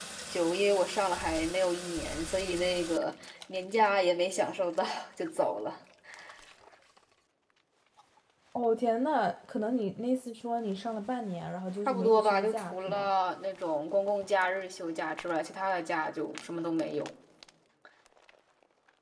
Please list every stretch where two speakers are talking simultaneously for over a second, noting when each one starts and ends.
11.9-13.1

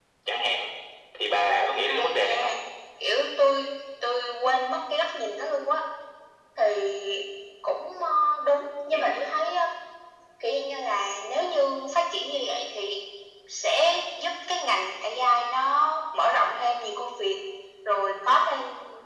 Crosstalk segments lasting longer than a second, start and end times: 1.3-2.5

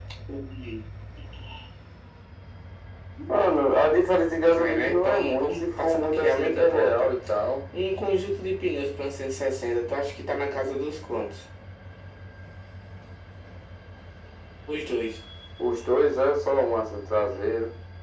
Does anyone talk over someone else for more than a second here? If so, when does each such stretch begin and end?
4.5-7.1

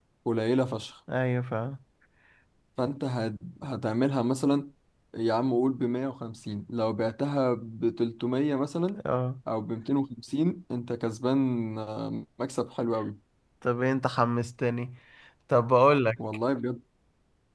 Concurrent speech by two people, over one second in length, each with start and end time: none

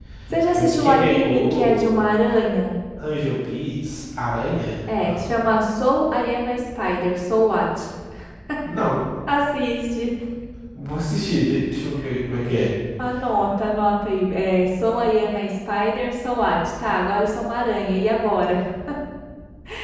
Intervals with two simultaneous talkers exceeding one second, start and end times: 0.6-2.0

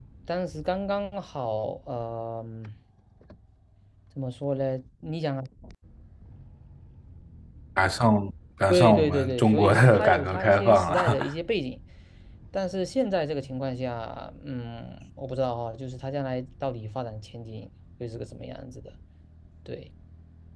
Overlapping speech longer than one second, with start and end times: 8.7-11.2

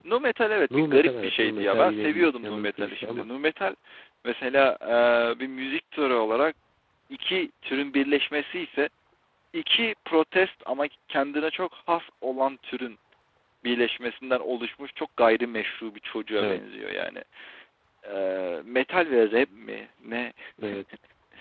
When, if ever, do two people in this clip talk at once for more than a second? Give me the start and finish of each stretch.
0.8-3.3

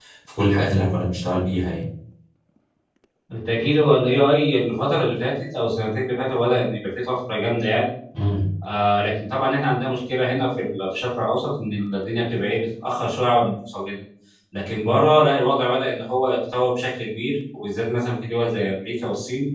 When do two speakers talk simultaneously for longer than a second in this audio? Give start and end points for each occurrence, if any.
none

